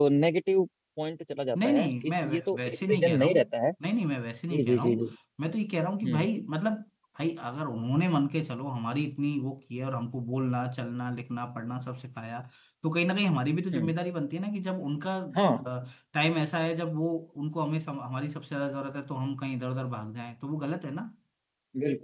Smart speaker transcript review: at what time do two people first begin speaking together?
1.6 s

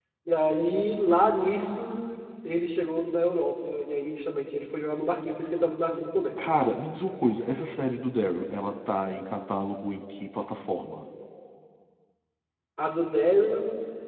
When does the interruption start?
none

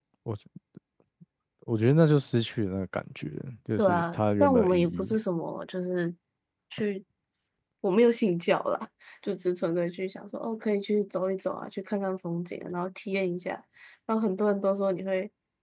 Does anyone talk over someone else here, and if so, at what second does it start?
3.8 s

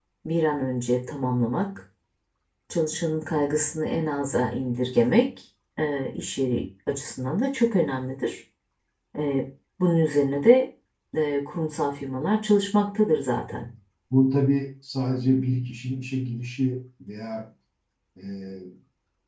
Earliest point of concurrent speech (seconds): none

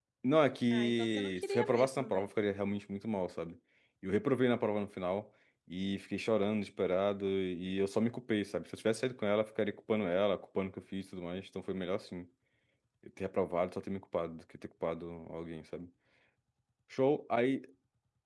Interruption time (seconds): 0.7 s

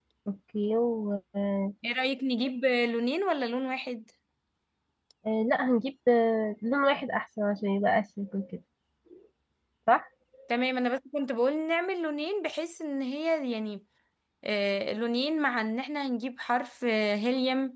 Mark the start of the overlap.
none

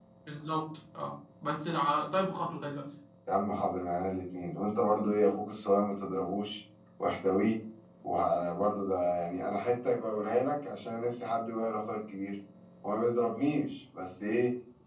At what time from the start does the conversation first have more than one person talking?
none

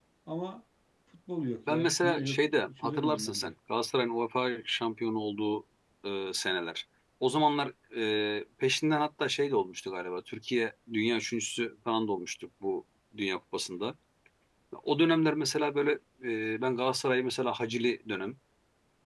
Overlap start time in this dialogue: 1.7 s

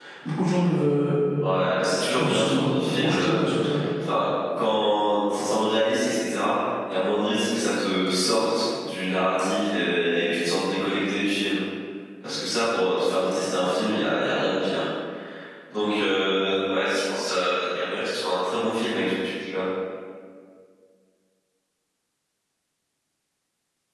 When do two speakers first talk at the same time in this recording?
2.2 s

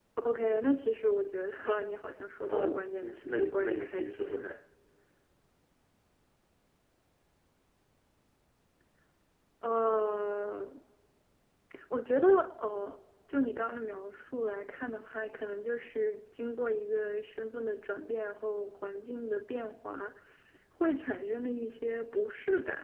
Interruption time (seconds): 2.4 s

